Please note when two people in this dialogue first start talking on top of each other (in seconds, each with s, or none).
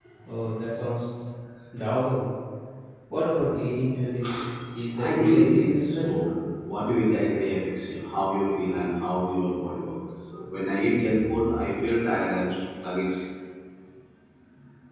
4.9 s